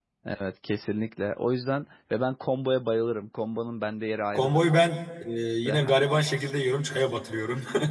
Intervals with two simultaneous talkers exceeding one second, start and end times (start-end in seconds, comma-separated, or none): none